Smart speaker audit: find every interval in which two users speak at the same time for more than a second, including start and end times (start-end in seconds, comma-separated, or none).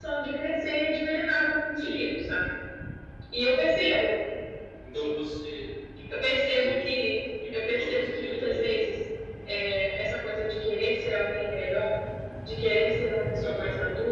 7.6-8.9